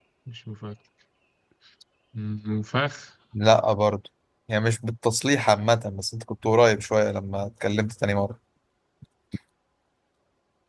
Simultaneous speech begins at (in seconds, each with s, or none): none